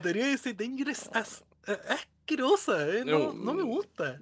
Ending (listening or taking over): taking over